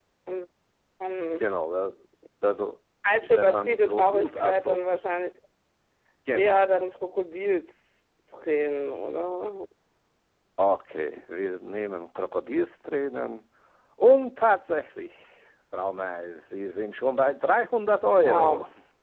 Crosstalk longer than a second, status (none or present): present